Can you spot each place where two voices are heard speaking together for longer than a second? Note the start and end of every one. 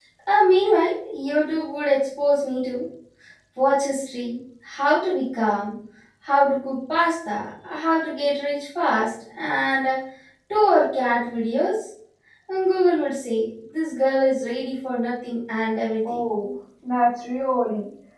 none

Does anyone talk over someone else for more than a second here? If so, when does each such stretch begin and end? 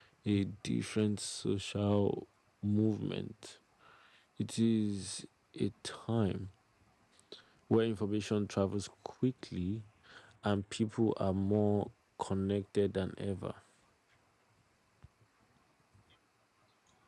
none

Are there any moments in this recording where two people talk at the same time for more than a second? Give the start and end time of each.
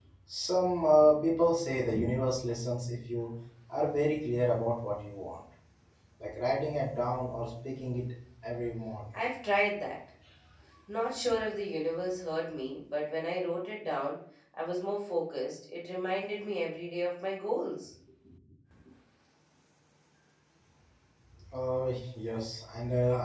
none

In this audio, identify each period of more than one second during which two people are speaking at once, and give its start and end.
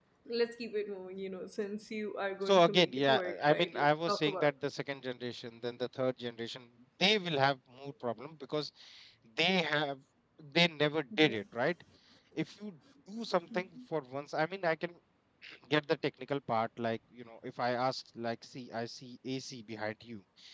2.4-4.5

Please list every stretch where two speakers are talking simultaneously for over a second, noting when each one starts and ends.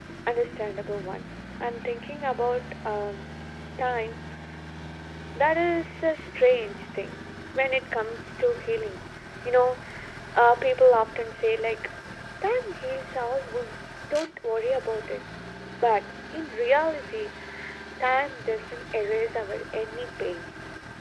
none

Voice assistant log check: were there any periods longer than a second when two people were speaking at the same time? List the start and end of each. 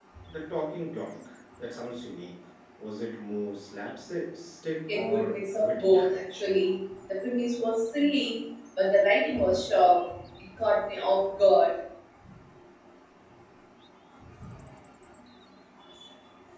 4.9-6.2

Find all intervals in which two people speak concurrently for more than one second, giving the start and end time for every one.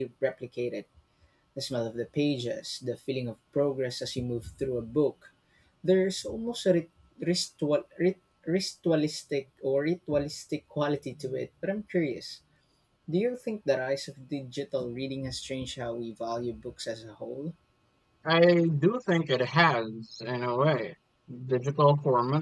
none

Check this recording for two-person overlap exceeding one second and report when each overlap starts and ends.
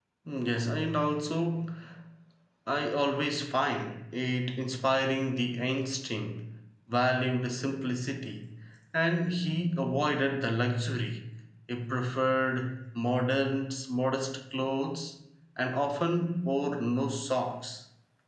none

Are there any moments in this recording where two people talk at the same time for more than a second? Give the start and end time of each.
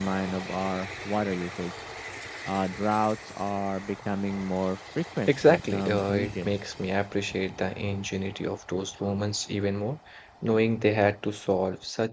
5.3-6.5

